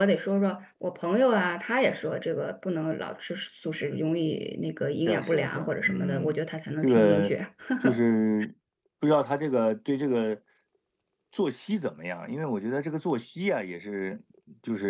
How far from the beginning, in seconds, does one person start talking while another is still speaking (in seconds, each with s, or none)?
5.1 s